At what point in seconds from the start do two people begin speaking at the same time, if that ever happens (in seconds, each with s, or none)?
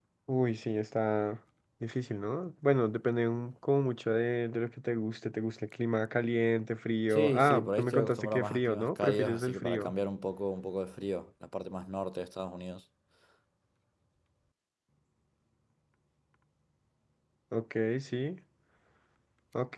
7.1 s